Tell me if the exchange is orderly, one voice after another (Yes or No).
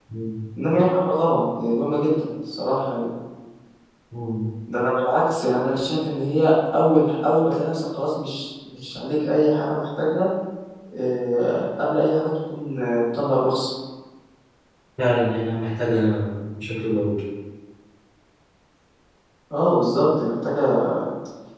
Yes